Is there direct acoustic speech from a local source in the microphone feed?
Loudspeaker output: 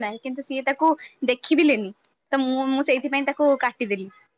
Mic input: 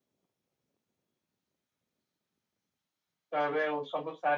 Yes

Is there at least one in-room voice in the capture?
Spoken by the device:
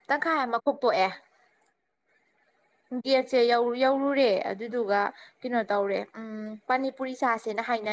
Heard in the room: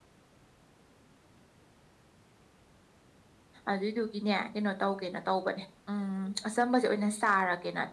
Yes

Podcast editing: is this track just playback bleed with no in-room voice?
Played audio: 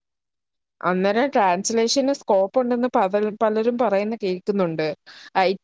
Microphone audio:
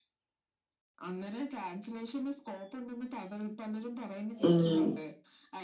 No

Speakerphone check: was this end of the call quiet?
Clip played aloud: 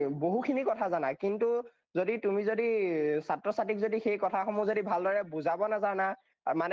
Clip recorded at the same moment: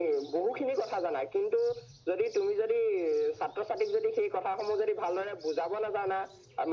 Yes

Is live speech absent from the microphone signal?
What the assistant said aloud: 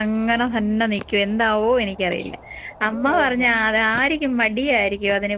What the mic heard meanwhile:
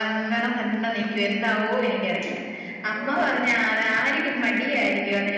Yes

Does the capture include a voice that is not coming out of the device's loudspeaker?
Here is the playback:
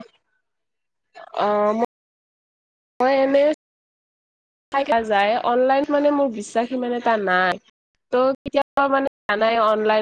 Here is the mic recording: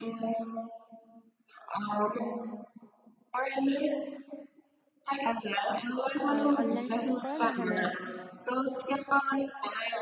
Yes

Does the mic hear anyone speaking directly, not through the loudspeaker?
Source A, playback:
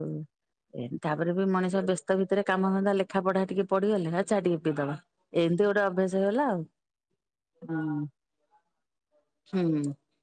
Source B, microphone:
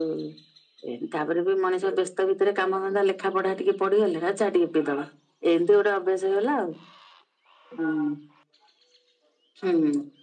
No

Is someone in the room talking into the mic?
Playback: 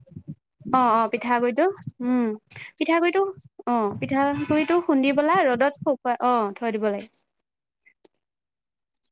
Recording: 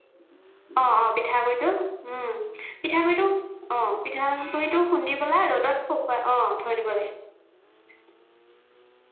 No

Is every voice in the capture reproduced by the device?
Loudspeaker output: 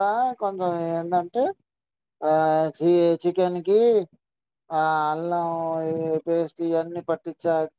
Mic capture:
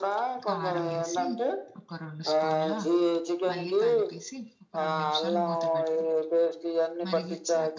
No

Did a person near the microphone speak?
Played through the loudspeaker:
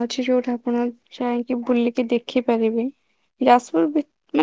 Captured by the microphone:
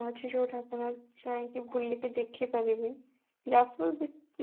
No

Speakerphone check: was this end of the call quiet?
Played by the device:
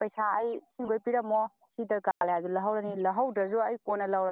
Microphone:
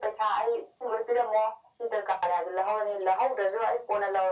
Yes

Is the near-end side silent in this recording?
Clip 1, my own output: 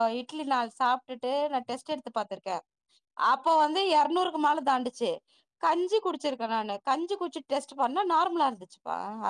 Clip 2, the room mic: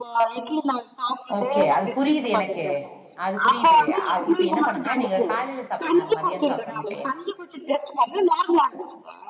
No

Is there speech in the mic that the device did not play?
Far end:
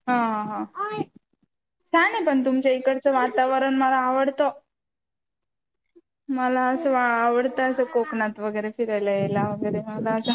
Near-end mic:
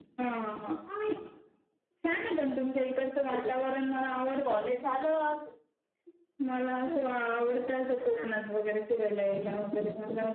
Yes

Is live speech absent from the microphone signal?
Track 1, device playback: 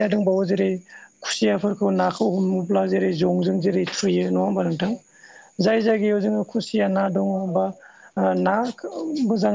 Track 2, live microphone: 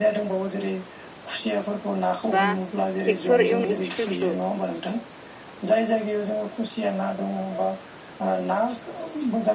No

